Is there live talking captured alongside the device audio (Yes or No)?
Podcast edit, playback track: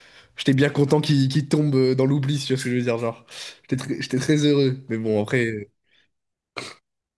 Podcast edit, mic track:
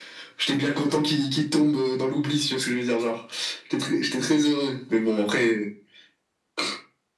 No